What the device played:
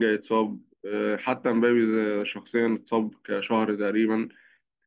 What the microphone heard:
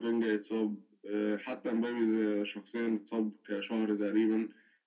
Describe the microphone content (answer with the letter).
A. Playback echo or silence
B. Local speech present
A